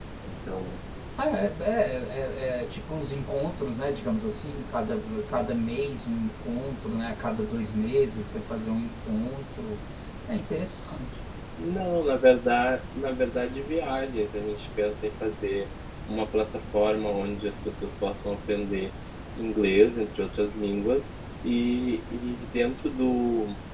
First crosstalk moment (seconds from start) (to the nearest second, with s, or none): none